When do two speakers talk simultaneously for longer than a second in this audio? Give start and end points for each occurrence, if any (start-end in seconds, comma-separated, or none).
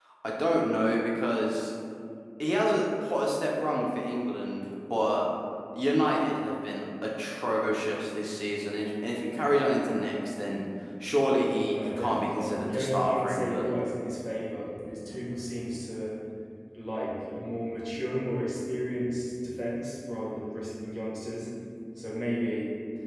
11.6-13.8